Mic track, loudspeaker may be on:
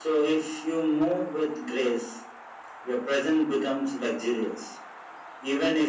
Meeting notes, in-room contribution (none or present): none